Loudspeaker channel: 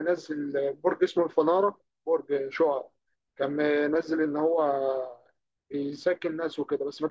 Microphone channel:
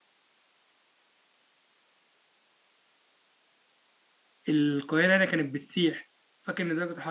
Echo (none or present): none